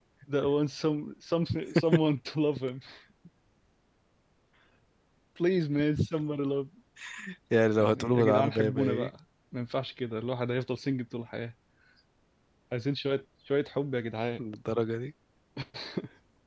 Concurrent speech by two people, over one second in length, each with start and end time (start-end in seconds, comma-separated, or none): 7.8-9.1